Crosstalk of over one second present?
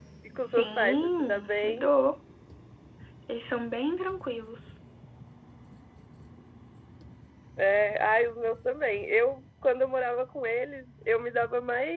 Yes, from 0.5 s

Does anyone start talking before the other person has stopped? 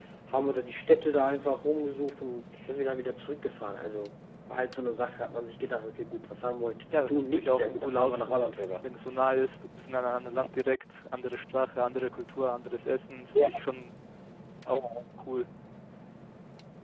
Yes, from 6.9 s

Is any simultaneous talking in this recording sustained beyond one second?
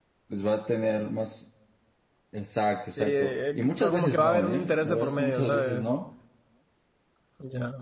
Yes, from 3.0 s

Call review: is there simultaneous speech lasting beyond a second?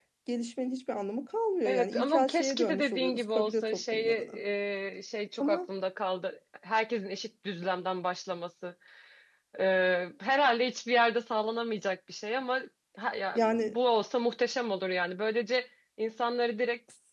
Yes, from 1.6 s

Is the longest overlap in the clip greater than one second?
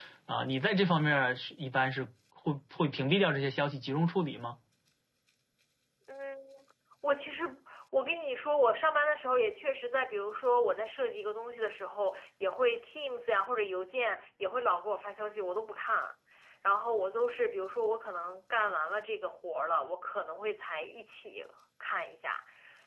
No

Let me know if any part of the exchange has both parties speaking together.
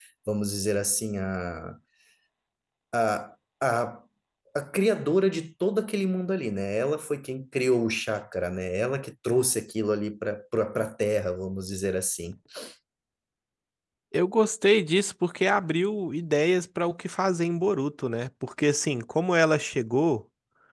No

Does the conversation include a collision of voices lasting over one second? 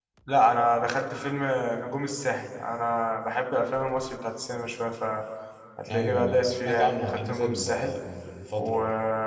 Yes, from 5.9 s

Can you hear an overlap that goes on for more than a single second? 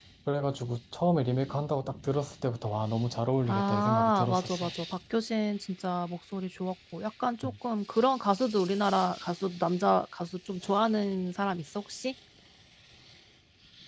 Yes, from 3.5 s

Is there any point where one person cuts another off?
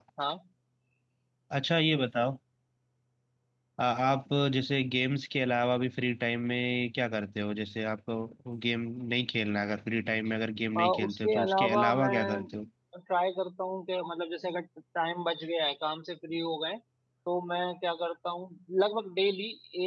Yes, from 10.8 s

